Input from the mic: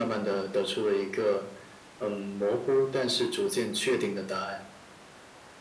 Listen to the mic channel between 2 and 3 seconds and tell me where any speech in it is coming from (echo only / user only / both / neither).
echo only